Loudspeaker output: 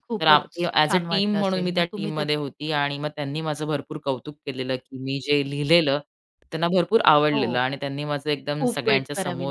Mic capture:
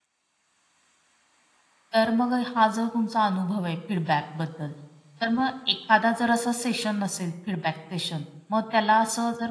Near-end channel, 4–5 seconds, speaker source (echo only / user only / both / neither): user only